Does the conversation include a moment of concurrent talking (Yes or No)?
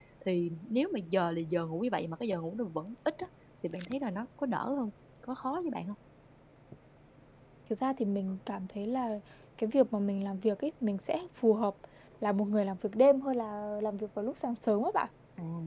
No